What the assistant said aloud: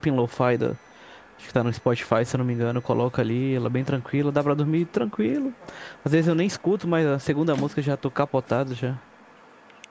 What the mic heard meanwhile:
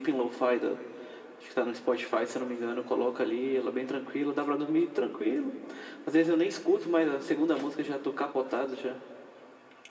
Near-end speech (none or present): none